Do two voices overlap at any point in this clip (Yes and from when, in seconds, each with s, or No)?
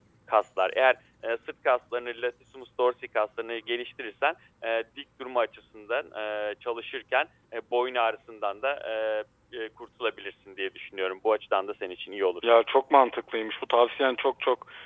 No